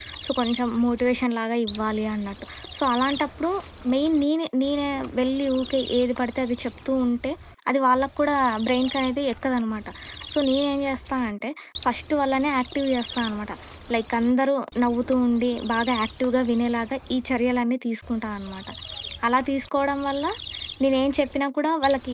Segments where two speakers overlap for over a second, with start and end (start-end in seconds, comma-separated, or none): none